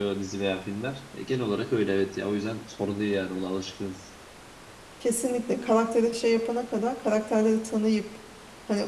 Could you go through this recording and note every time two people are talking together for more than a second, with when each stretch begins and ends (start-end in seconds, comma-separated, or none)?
none